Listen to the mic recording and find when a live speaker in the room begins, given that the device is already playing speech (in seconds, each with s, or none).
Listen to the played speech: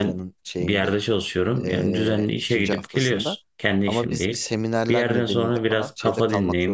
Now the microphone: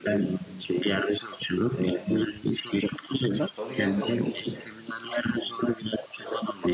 3.4 s